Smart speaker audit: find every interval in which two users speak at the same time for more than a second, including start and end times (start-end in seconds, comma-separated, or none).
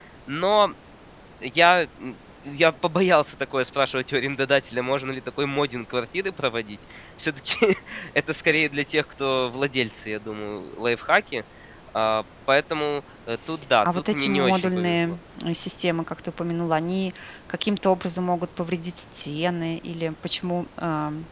13.8-15.2